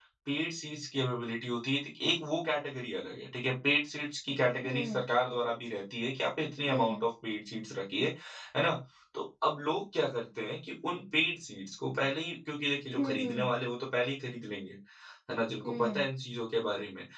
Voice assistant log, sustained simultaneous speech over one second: none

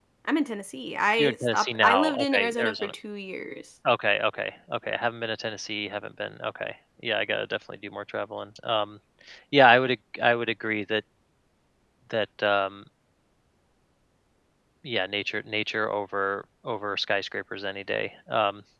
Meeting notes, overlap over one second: present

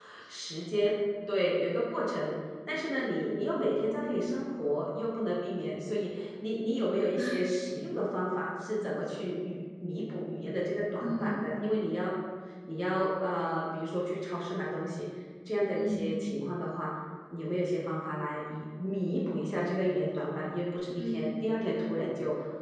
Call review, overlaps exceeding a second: none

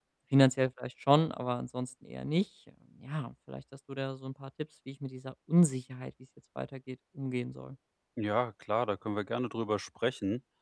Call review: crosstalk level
none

